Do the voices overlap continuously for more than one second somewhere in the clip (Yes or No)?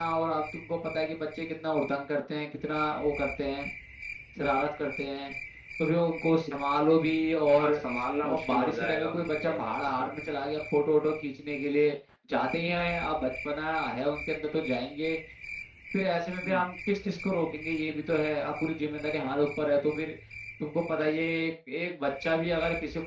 Yes